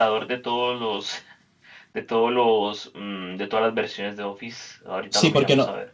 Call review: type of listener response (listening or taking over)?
taking over